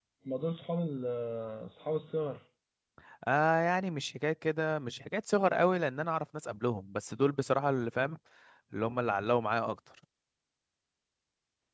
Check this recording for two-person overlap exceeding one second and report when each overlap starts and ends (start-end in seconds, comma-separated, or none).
none